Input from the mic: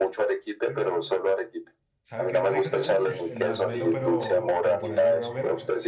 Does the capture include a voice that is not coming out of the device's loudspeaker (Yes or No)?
Yes